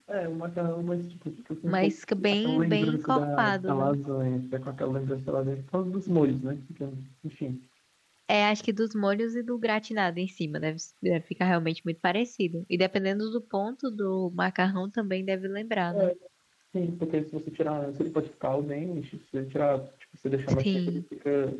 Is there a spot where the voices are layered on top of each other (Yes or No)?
Yes